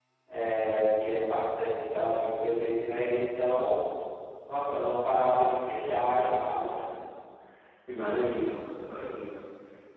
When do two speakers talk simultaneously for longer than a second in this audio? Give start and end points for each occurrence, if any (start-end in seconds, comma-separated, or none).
none